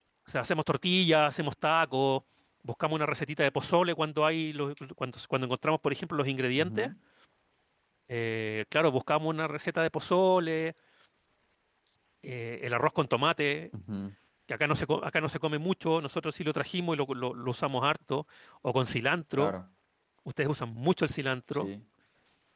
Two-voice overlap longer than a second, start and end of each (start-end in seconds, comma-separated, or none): none